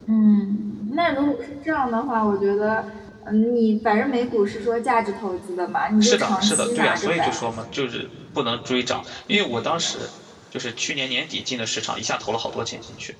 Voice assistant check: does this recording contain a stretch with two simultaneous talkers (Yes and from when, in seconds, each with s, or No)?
Yes, from 6.0 s